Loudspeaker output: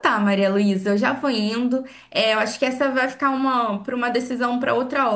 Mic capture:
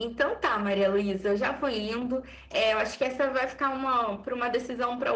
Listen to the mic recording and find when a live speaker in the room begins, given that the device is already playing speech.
none

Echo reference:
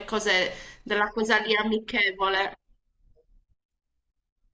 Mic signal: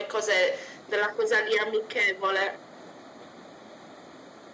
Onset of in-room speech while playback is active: none

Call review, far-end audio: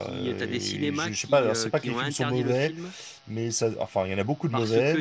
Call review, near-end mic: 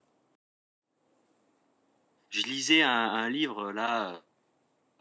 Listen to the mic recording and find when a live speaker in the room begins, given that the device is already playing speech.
2.3 s

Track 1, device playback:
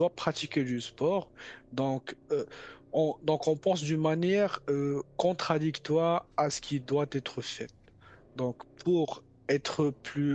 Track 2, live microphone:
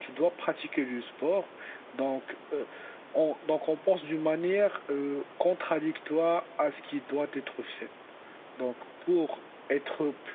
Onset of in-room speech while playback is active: none

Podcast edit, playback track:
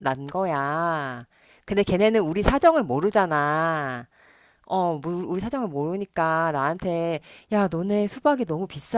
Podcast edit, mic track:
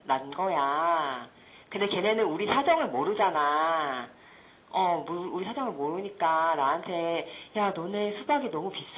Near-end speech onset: none

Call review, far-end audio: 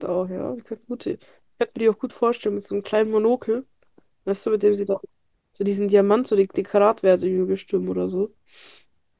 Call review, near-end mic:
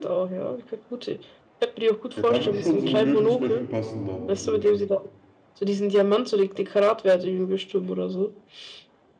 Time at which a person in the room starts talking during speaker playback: 2.1 s

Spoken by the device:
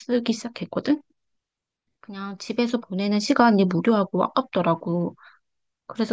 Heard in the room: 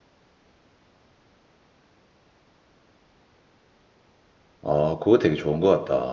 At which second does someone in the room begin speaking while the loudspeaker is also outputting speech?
4.6 s

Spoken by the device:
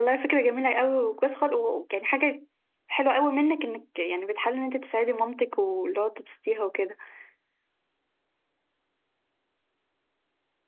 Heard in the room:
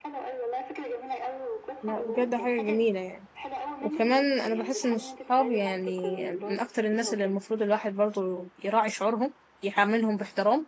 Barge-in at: 1.8 s

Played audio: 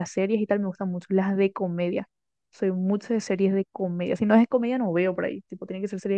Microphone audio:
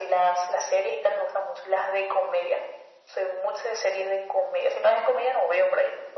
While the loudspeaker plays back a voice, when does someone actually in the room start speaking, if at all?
none

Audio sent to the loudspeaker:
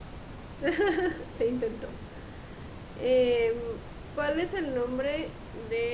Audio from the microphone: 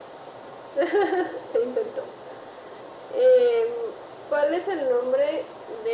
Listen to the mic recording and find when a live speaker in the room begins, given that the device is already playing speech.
none

